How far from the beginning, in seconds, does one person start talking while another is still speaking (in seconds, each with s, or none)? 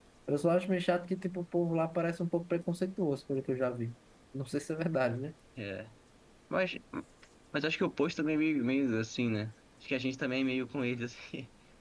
none